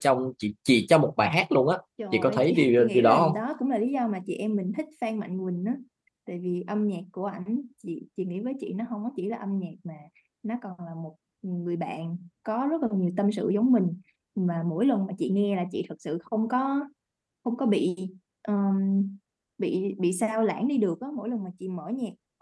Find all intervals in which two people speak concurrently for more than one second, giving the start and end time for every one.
2.1-3.4

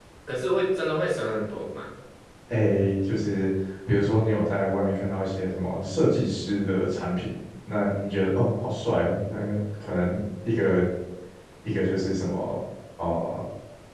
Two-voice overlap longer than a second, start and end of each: none

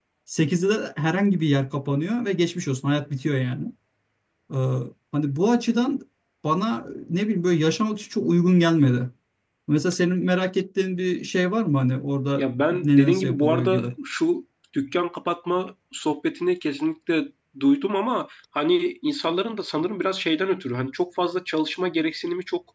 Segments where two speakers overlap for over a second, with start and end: 12.4-13.9

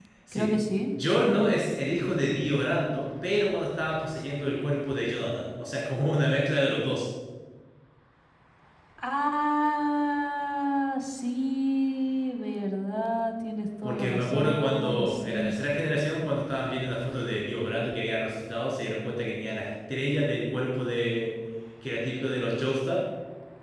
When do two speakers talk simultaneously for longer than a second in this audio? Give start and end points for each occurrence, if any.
13.8-15.5

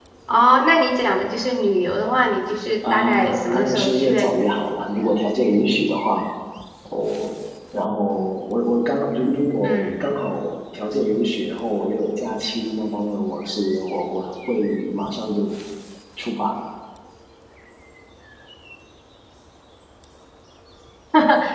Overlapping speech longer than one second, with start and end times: 2.8-4.4

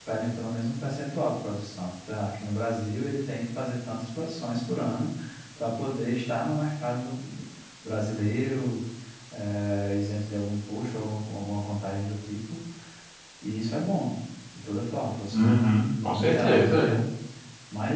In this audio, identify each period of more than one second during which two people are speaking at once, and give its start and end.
15.3-16.8

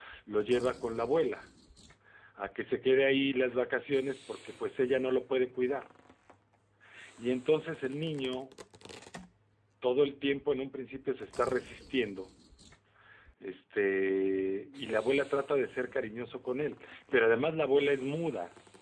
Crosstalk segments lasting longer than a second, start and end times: none

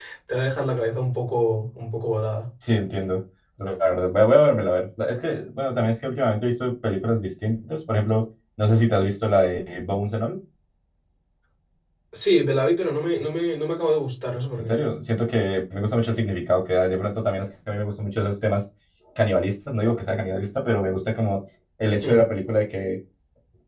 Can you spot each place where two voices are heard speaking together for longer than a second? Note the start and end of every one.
none

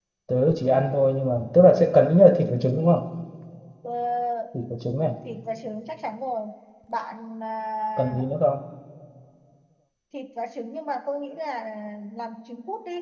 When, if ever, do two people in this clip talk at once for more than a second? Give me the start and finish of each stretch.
none

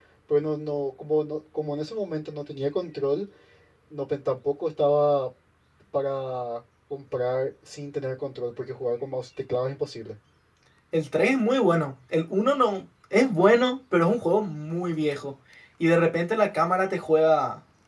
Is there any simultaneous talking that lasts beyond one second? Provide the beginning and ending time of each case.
none

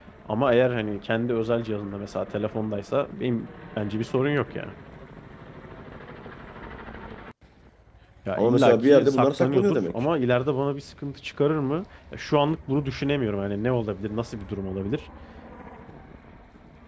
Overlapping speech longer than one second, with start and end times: 8.4-9.9

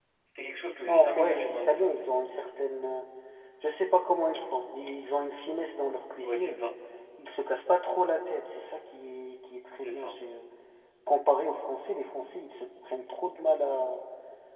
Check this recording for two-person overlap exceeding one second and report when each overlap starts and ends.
0.9-2.1

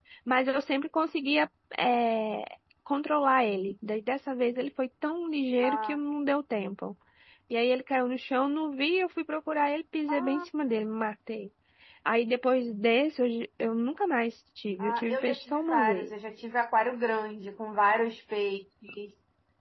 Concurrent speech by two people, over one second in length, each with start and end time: 14.8-16.1

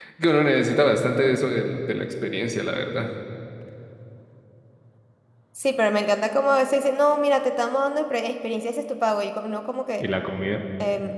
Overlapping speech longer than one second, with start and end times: none

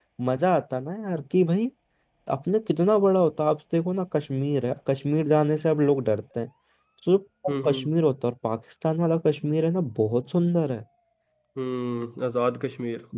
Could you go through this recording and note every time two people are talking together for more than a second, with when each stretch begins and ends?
none

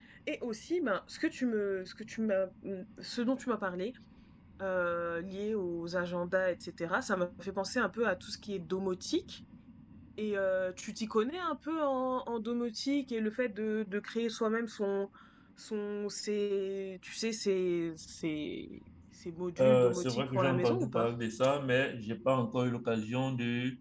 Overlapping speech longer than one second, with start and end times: 19.6-21.1

